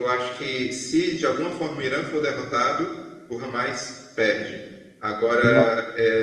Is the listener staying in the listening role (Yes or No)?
Yes